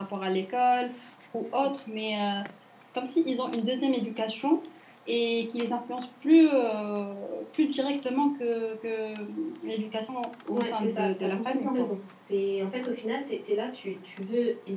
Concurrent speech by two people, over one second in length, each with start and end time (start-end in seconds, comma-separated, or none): 10.5-11.9